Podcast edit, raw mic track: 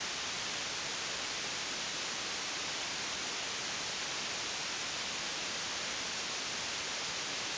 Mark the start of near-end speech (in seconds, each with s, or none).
none